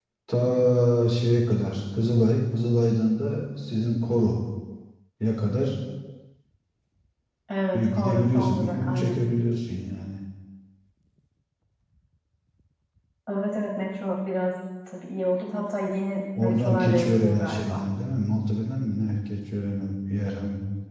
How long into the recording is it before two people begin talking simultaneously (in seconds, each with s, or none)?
7.7 s